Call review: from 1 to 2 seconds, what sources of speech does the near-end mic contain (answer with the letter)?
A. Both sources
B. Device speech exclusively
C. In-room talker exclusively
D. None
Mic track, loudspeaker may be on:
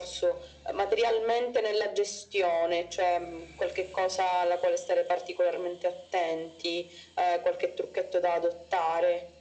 B